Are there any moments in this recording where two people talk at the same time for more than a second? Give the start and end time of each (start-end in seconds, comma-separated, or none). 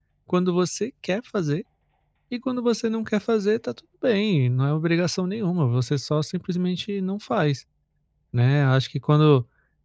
none